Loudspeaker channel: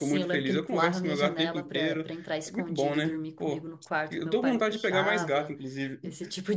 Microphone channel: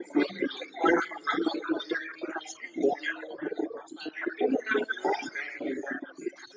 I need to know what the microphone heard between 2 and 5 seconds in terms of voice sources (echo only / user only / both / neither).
echo only